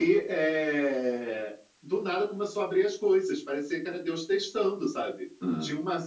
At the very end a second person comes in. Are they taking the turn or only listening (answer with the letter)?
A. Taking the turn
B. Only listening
B